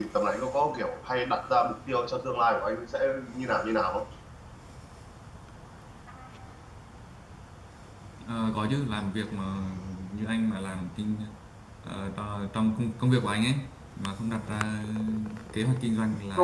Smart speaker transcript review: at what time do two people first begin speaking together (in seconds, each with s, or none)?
none